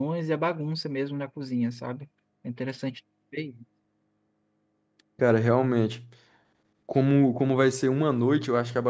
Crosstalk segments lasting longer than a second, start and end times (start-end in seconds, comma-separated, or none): none